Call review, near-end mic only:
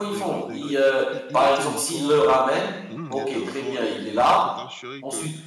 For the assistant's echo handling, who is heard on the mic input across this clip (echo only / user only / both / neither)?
both